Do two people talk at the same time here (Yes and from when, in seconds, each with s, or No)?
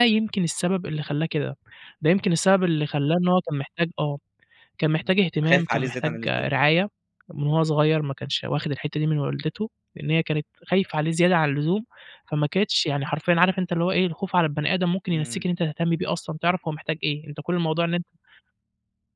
Yes, from 5.0 s